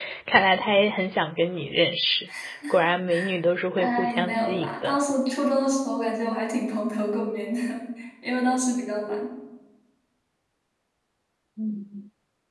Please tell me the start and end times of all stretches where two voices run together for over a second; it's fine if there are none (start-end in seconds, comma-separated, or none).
3.8-5.0